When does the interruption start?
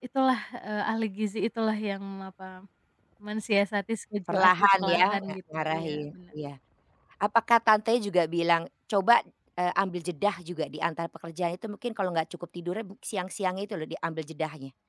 4.3 s

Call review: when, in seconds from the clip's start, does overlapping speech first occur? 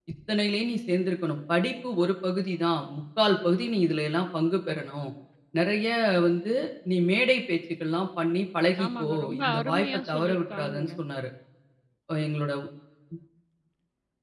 8.8 s

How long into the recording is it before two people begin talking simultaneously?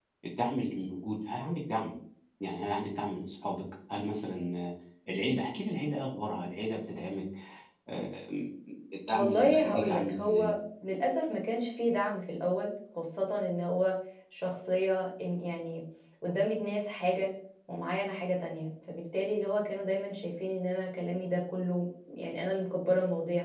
9.1 s

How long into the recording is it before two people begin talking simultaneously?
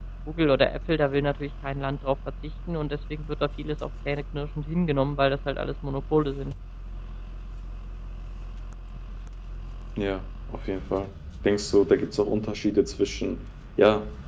none

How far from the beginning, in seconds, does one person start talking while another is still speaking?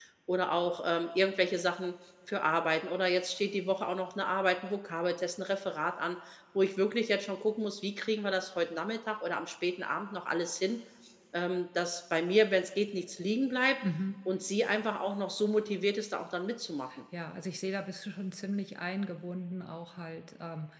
none

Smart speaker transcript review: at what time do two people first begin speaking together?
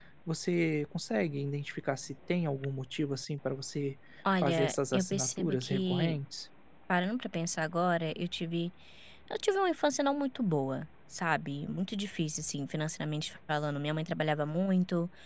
4.4 s

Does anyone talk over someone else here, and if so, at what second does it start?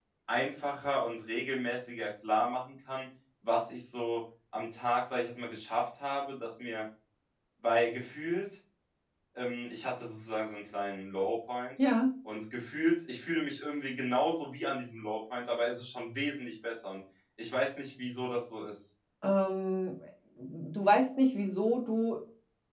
none

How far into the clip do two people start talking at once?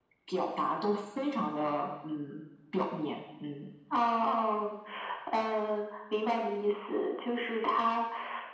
none

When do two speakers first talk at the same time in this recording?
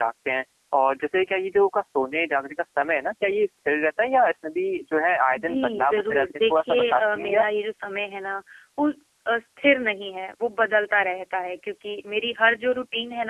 5.3 s

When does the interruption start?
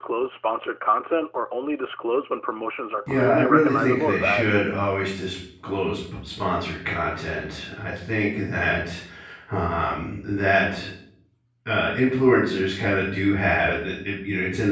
3.1 s

